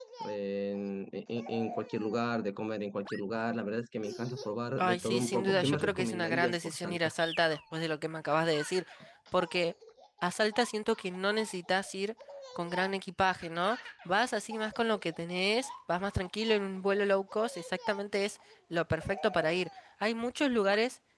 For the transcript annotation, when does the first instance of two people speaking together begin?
4.8 s

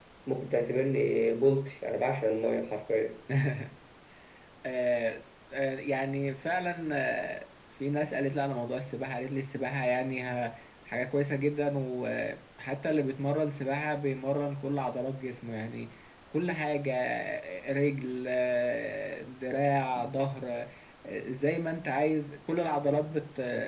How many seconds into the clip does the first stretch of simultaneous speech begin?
none

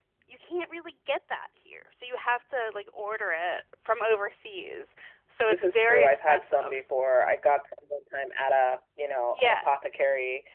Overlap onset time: 5.5 s

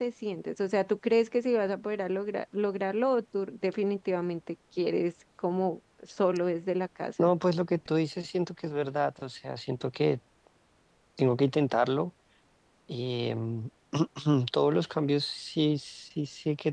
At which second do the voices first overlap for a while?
none

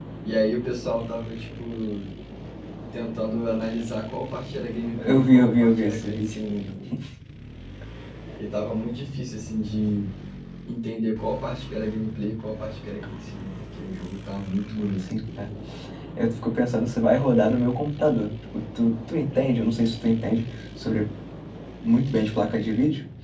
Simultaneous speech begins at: 5.0 s

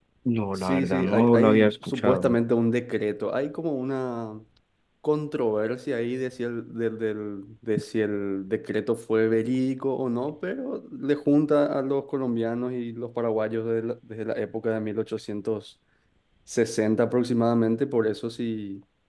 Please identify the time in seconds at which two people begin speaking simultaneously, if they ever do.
0.6 s

